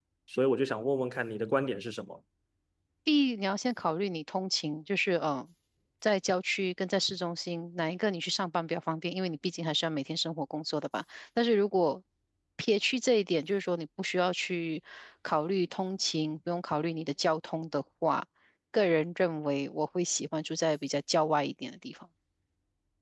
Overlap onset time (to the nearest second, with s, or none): none